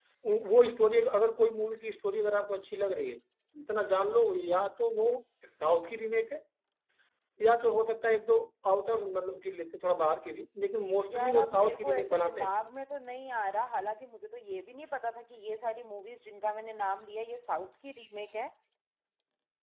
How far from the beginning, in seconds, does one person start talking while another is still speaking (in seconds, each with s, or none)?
11.1 s